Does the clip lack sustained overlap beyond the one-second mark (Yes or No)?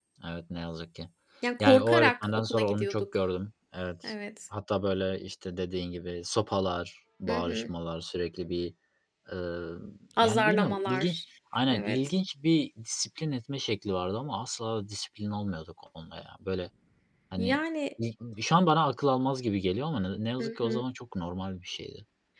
No